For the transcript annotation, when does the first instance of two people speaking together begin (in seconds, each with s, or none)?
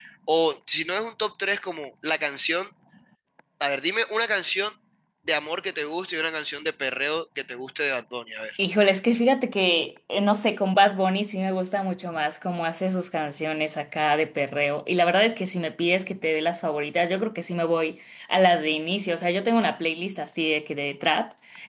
none